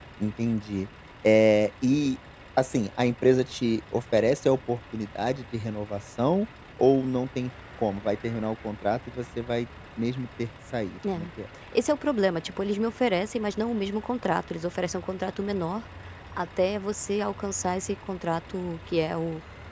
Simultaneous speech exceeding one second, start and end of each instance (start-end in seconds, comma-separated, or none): none